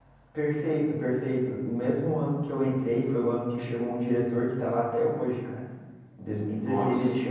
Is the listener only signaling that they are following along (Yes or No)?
Yes